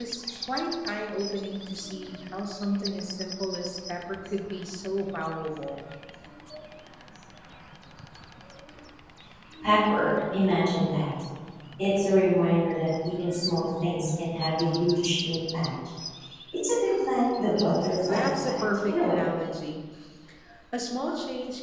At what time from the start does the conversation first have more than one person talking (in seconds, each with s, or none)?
17.5 s